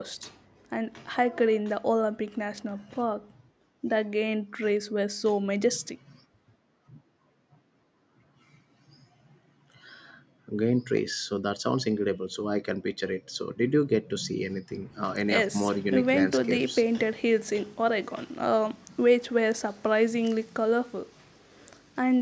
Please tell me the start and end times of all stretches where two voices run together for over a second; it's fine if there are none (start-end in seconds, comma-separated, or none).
15.3-16.8